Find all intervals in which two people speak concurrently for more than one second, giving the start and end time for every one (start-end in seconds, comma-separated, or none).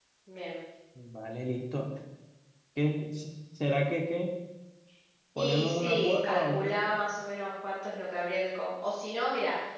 5.4-6.8